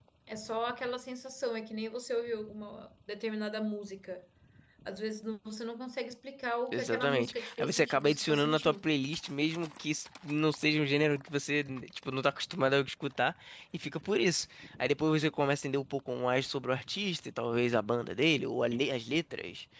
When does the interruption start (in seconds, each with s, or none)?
6.7 s